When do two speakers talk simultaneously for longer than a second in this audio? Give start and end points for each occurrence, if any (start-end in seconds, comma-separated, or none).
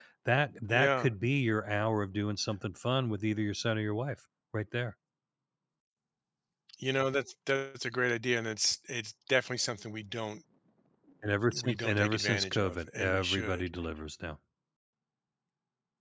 11.5-13.7